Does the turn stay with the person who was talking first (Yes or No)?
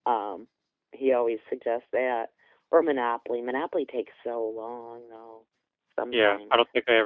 No